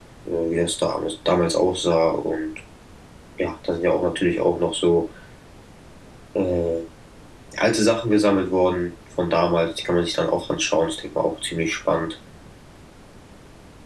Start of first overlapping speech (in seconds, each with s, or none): none